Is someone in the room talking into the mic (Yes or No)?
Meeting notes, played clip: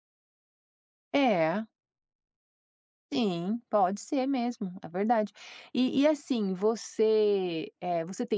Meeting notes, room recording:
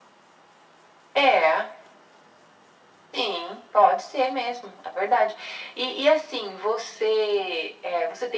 No